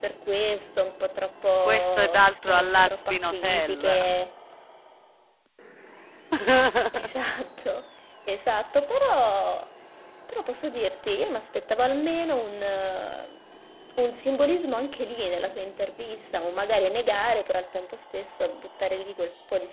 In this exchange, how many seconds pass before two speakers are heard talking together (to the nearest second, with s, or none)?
2 s